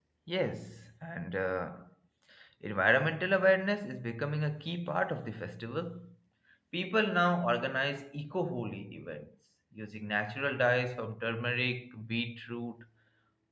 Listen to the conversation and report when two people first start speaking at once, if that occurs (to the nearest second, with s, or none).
none